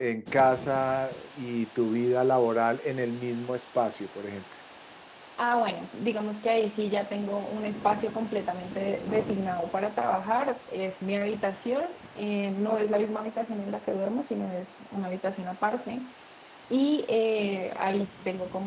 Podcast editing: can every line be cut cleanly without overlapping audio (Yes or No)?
Yes